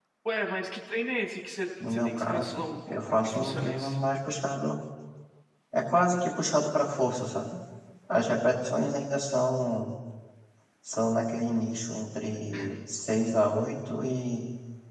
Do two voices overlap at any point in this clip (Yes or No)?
Yes